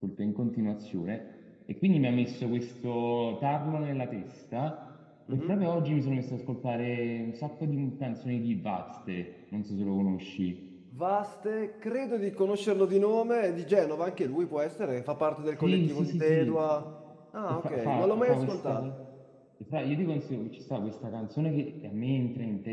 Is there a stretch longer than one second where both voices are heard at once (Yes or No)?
Yes